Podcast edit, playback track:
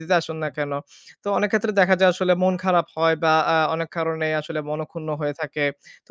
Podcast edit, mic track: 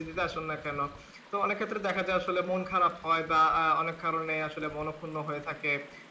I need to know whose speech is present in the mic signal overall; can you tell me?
echo only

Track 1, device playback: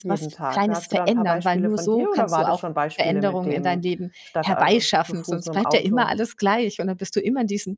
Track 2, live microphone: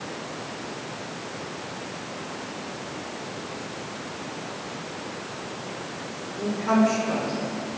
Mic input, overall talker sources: user only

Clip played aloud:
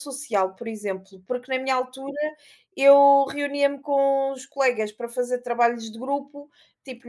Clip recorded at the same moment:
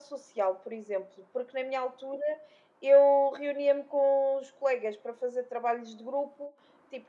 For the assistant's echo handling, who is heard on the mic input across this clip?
echo only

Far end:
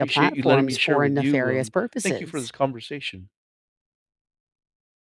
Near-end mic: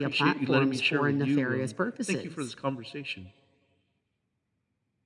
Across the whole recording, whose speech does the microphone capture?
echo only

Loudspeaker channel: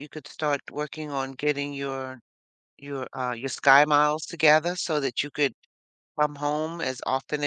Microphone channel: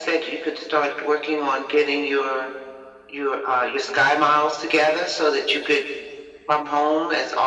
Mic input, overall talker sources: echo only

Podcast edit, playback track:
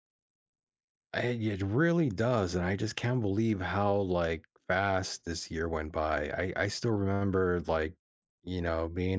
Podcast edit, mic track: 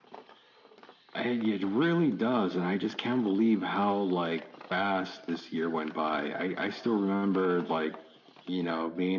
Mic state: echo only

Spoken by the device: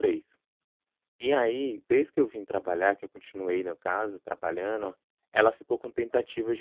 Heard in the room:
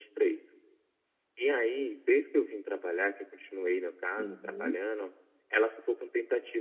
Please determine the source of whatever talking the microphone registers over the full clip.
both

